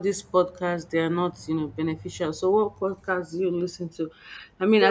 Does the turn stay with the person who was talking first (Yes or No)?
Yes